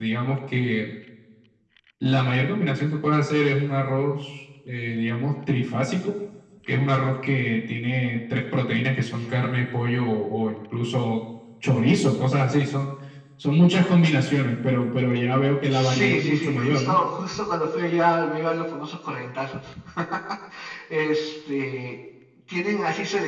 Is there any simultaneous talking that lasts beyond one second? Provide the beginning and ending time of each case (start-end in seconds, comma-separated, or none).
15.7-16.9